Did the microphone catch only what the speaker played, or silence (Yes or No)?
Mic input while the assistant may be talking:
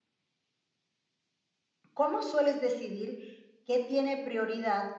No